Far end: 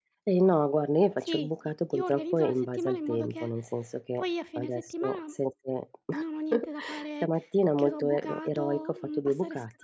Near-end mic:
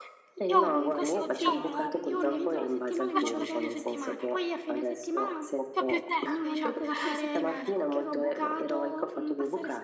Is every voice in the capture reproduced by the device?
No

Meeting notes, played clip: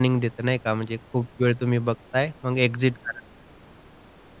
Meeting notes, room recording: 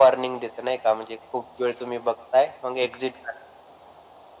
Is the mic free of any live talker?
Yes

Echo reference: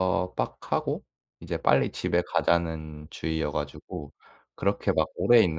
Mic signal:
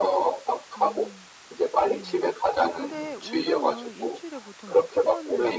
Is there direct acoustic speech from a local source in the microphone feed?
Yes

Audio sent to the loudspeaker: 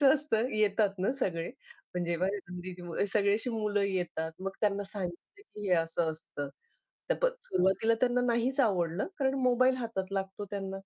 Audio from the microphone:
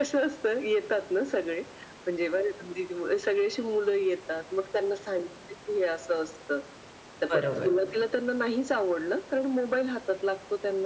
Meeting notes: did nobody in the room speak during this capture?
No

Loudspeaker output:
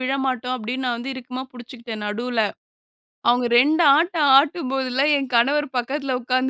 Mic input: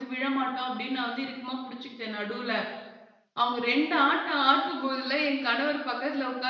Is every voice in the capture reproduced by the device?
Yes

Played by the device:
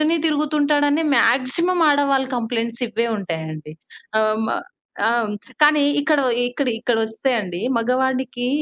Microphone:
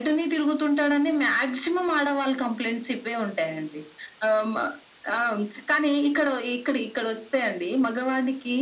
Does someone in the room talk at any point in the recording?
No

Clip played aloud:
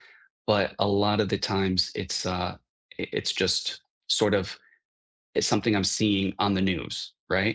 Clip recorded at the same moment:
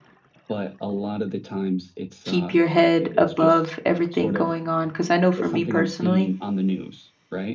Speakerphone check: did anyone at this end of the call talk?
Yes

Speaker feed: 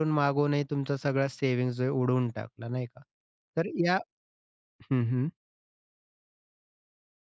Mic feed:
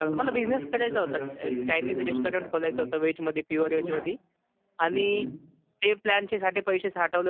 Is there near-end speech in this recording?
Yes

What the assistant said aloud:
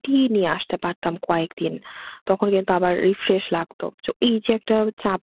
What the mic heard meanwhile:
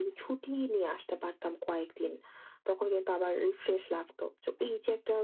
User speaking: No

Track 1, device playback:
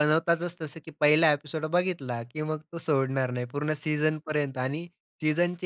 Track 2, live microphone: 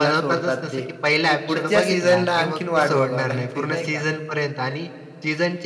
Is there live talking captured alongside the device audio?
Yes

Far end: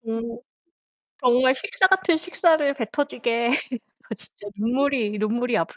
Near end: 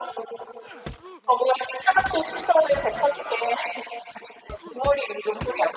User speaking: No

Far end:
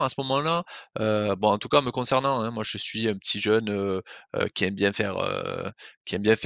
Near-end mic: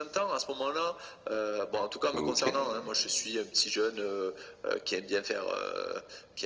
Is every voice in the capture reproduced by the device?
No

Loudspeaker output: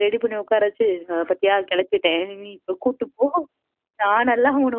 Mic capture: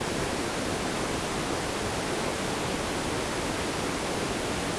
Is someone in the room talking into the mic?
No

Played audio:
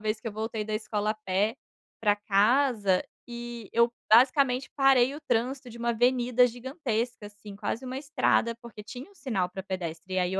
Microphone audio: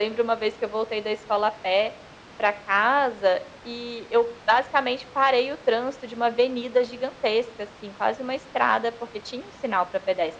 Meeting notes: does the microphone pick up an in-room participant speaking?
No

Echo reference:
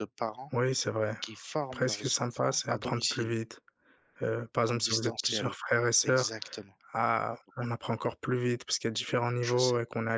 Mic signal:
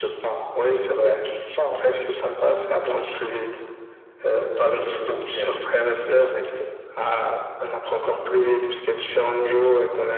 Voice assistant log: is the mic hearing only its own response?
Yes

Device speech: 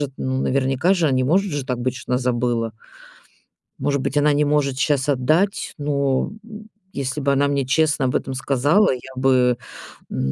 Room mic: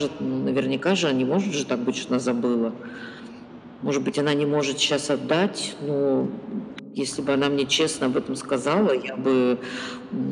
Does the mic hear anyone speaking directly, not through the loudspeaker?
No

